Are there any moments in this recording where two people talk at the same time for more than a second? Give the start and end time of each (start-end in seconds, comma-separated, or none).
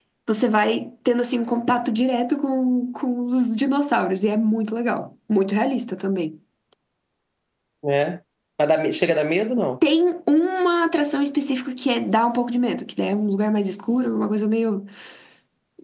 none